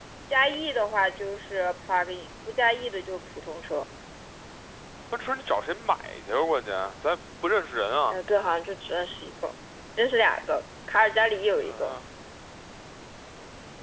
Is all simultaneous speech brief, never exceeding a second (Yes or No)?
Yes